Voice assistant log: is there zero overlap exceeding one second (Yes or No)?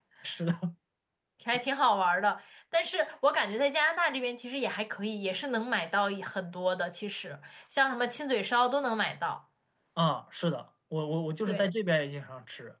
Yes